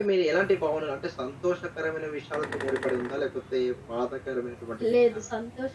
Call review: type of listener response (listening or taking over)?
taking over